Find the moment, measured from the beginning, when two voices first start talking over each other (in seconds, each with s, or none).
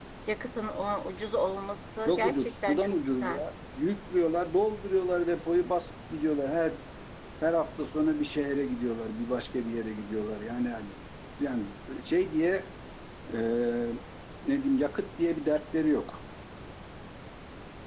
2.0 s